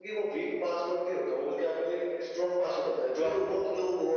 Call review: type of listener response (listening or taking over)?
taking over